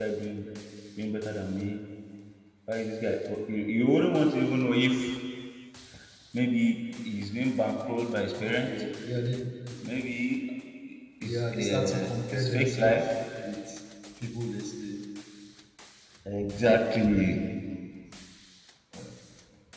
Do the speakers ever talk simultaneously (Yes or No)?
Yes